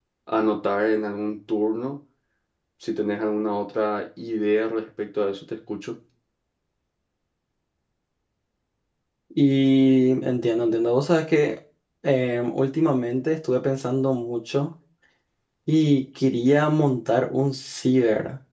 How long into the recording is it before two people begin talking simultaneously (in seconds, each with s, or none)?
none